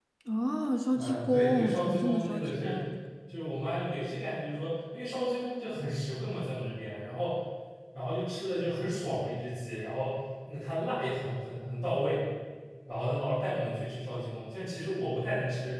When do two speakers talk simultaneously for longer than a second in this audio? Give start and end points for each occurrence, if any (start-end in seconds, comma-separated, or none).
0.9-2.7